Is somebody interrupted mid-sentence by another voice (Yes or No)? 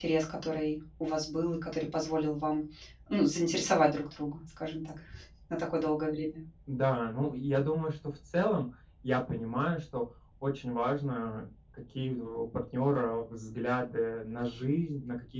No